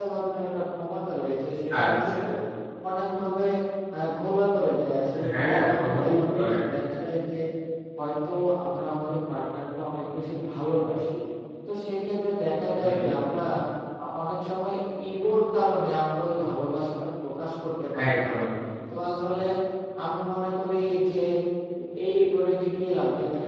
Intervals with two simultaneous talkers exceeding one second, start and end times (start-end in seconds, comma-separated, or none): 5.3-6.5